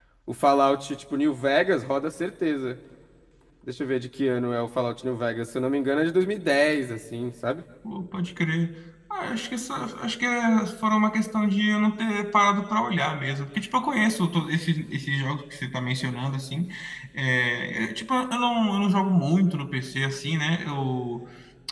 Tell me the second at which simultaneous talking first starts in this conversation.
none

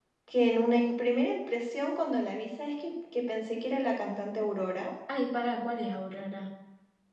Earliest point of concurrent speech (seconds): none

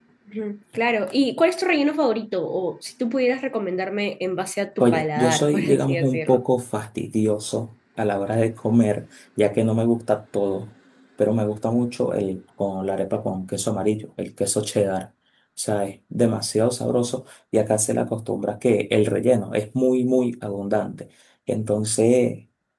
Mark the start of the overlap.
4.8 s

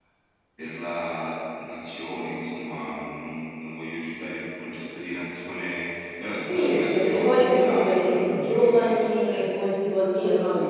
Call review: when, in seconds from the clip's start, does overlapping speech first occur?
6.5 s

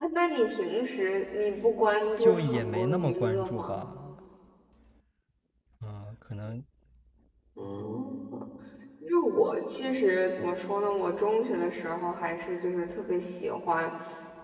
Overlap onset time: 2.2 s

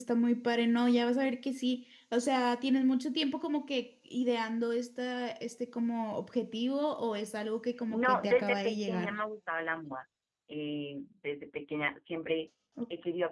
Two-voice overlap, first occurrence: 7.9 s

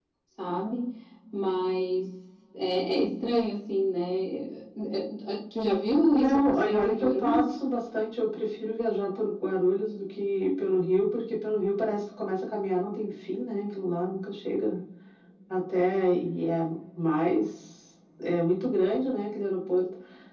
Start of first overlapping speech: 6.1 s

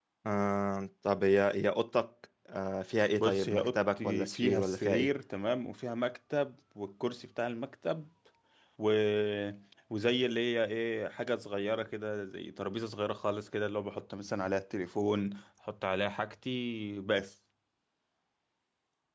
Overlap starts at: 3.2 s

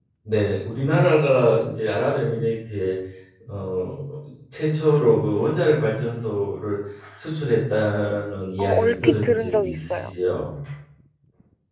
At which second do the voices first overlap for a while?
8.6 s

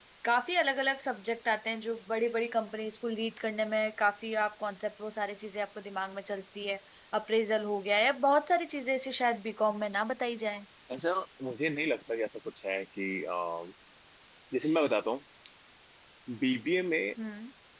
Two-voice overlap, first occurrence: none

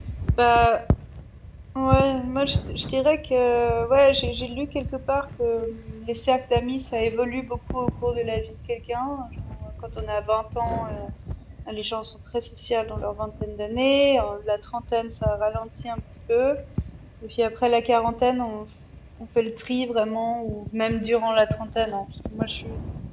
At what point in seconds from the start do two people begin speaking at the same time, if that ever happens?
none

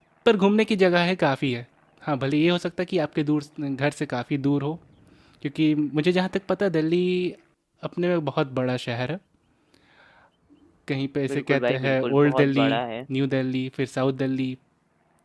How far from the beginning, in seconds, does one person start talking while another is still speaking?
11.3 s

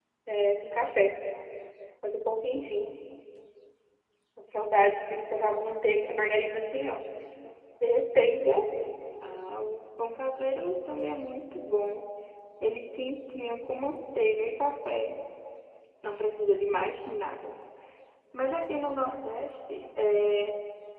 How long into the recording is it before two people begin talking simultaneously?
none

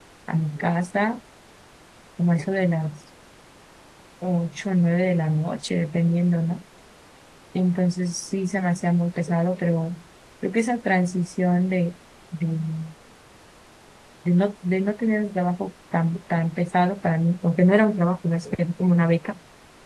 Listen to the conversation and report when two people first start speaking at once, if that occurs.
none

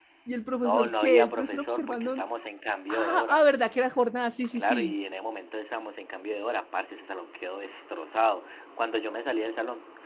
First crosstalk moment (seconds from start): 0.6 s

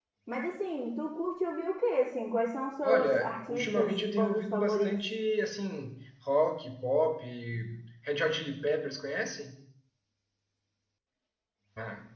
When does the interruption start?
2.8 s

